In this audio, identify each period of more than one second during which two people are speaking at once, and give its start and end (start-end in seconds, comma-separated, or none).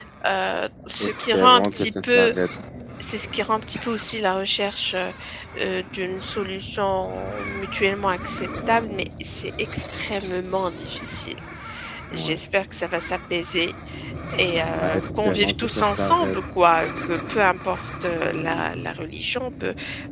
1.0-2.3, 14.8-16.4